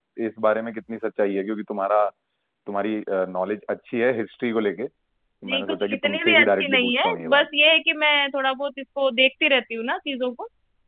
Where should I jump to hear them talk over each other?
5.5 s

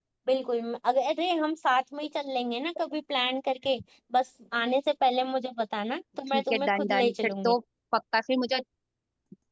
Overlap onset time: 6.3 s

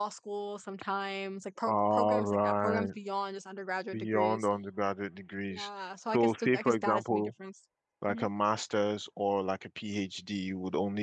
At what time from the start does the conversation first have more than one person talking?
1.6 s

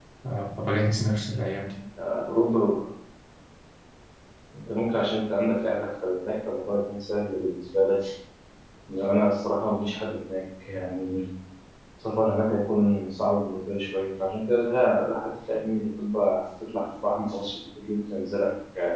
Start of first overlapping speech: none

